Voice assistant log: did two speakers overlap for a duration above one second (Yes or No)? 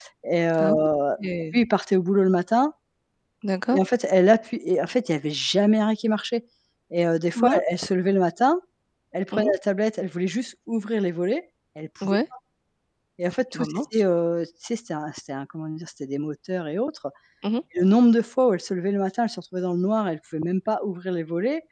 No